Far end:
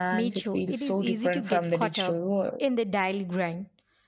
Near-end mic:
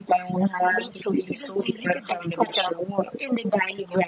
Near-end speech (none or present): none